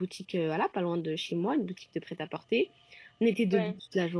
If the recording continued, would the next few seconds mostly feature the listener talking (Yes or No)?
No